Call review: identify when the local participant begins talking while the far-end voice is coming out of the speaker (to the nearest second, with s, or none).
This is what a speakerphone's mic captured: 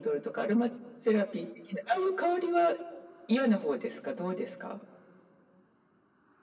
none